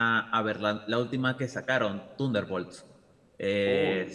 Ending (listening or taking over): listening